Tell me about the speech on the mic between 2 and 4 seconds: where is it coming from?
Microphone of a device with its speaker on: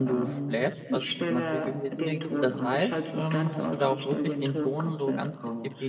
both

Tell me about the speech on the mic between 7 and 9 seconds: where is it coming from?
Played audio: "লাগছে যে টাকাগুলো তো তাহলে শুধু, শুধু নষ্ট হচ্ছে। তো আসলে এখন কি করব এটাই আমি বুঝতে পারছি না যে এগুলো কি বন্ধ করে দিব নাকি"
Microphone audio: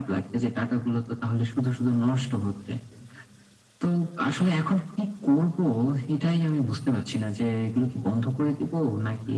echo only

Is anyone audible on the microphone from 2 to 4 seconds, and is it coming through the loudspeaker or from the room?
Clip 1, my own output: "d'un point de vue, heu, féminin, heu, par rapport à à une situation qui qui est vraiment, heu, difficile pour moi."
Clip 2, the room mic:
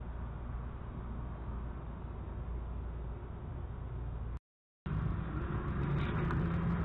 neither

